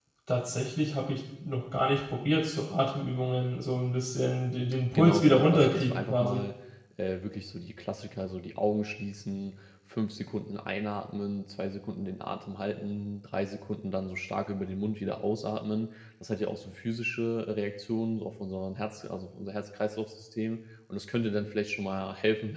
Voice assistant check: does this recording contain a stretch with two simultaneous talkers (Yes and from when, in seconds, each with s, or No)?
Yes, from 5.0 s